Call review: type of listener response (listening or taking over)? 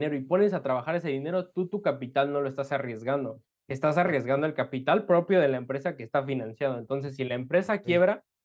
listening